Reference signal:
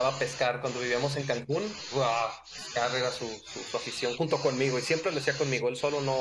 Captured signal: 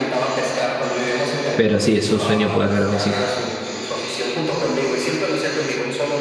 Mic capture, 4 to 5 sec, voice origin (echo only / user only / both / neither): echo only